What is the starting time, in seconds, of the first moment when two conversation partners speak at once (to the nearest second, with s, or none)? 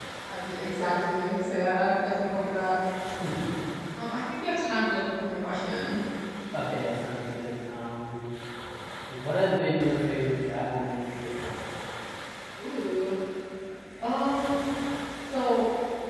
none